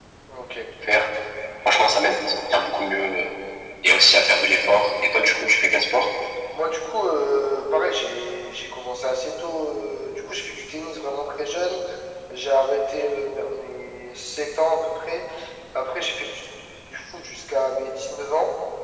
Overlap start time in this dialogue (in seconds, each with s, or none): none